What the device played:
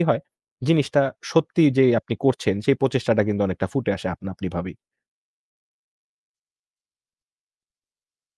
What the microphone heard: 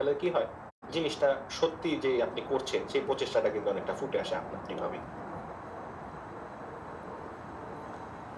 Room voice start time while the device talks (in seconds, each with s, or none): none